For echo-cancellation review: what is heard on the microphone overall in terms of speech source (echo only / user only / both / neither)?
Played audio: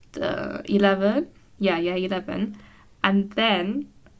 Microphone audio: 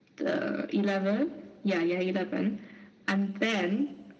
echo only